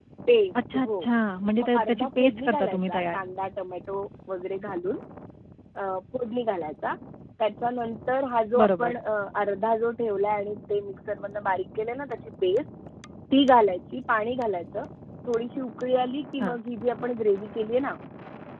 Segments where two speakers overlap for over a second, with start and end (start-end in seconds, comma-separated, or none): 1.6-3.2